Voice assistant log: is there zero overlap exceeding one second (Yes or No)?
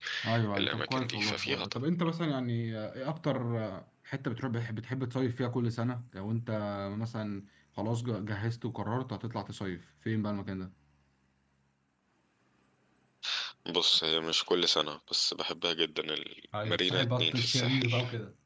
No